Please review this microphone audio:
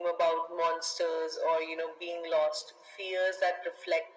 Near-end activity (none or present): none